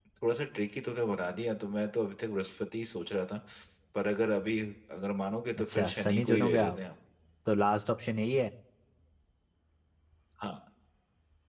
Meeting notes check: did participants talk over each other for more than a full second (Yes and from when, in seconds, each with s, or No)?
Yes, from 5.6 s